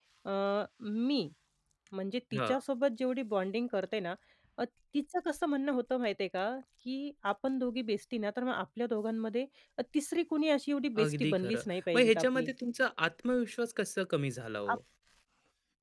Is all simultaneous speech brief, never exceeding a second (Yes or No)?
No